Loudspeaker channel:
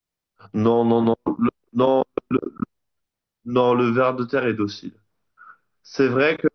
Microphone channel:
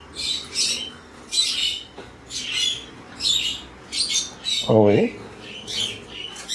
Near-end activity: present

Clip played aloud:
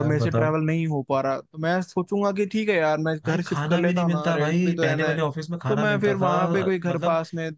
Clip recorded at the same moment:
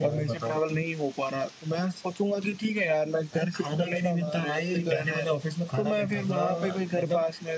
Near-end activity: none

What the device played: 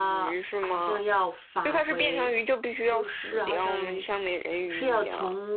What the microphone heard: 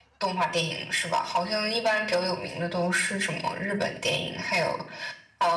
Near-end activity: present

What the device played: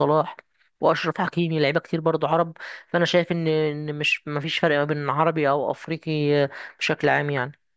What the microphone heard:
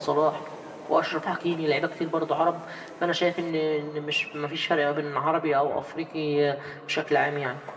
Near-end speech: none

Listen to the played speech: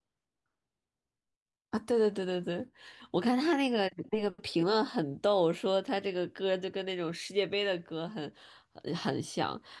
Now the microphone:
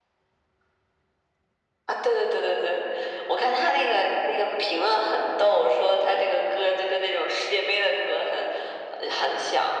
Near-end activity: none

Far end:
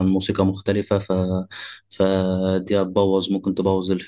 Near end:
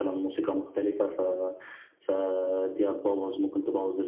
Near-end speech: none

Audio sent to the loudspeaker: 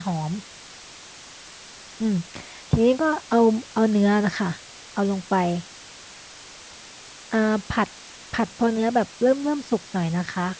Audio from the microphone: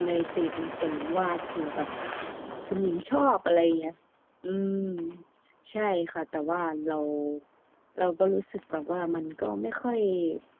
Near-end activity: present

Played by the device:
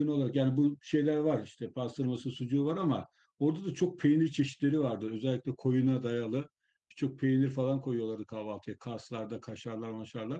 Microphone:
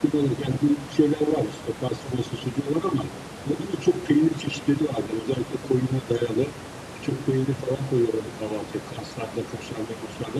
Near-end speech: none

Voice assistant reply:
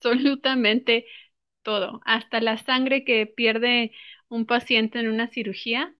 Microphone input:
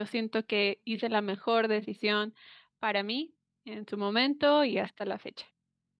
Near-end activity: present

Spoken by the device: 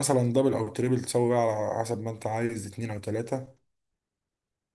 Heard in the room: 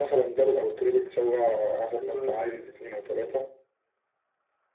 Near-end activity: present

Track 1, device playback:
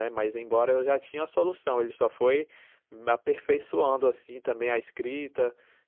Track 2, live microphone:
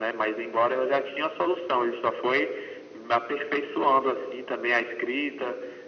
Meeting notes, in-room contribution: none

